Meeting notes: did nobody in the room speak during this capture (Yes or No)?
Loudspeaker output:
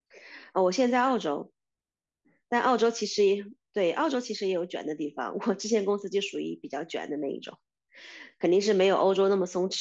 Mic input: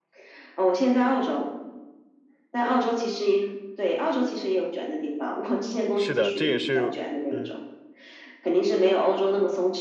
No